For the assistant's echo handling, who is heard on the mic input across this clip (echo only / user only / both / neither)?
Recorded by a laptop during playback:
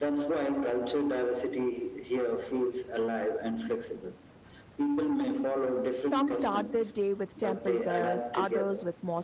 both